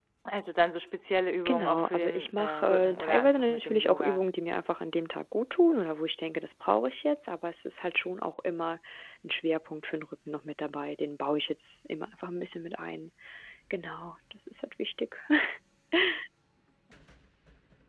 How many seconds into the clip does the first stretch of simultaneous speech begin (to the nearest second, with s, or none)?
1 s